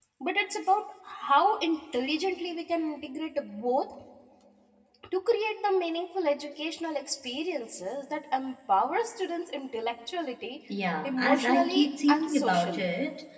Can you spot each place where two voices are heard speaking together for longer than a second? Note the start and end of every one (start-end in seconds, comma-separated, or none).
11.0-12.9